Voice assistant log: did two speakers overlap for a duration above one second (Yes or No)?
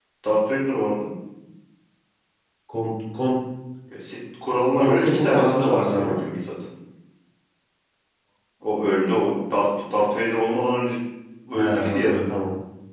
Yes